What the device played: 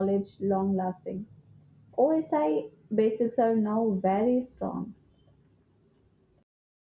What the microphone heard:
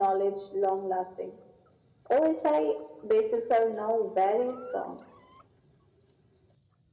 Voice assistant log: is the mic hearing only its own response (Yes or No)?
Yes